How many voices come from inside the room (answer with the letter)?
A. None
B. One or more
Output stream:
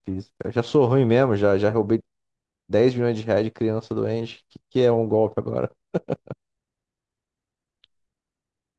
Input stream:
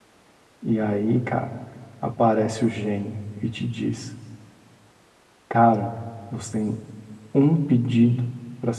B